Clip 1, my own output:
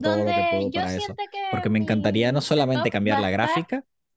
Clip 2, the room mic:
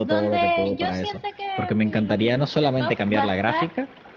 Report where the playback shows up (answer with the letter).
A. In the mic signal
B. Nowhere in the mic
A